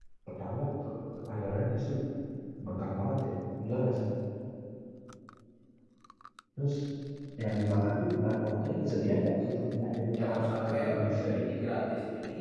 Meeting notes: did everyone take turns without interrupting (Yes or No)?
No